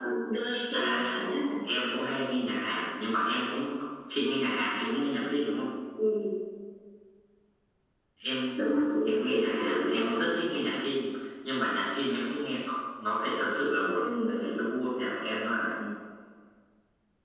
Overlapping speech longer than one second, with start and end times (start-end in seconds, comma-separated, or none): 9.1-10.3